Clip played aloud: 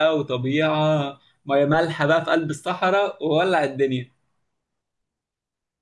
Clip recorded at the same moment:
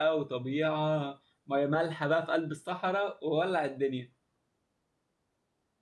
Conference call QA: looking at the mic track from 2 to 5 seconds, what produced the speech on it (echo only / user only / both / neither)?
echo only